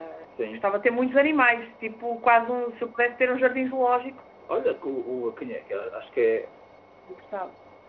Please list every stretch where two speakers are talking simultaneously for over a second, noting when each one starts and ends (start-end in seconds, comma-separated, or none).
none